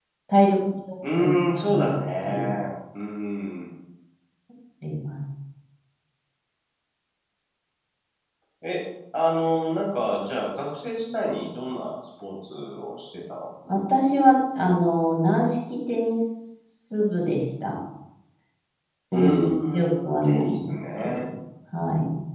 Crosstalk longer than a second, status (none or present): present